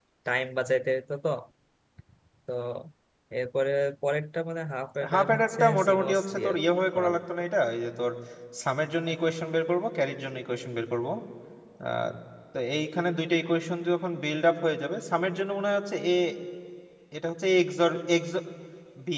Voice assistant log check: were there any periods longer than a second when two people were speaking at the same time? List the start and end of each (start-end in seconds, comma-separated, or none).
5.1-6.5